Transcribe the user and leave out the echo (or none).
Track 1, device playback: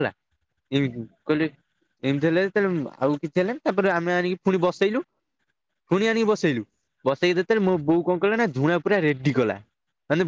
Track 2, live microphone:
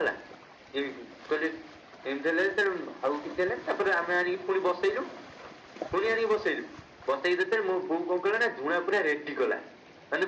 none